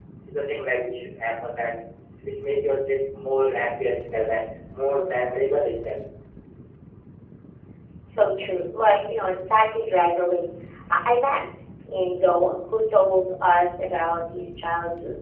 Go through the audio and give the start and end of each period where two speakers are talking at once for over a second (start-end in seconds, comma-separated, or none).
none